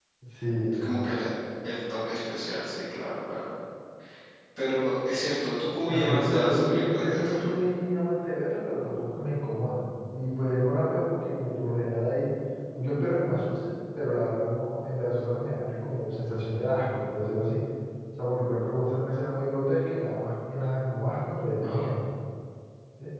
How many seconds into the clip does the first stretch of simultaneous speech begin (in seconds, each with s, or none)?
5.9 s